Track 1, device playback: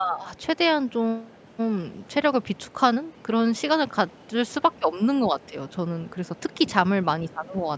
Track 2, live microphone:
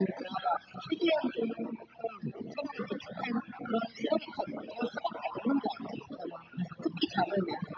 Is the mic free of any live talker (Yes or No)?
Yes